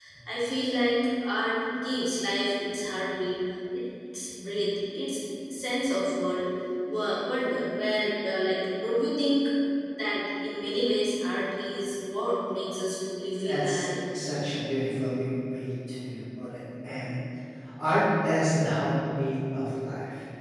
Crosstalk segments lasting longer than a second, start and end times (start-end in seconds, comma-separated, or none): none